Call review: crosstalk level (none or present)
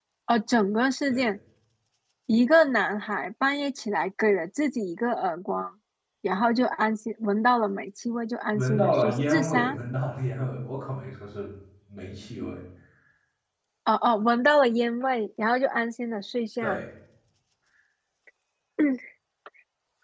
present